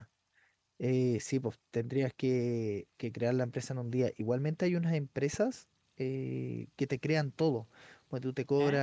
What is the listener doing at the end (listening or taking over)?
listening